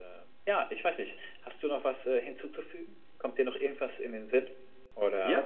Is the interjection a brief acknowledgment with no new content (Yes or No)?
No